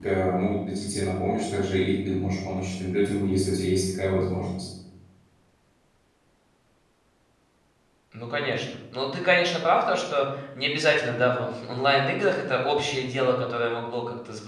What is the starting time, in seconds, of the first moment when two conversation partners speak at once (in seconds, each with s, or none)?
none